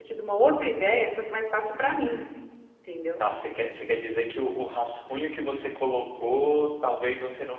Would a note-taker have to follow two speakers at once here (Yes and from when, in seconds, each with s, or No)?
No